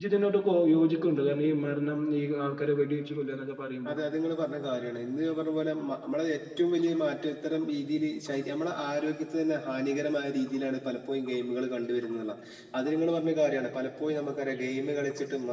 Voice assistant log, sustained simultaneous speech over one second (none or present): none